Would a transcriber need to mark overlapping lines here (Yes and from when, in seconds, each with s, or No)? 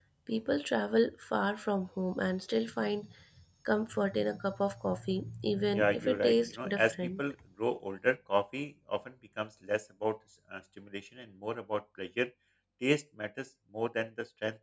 Yes, from 5.7 s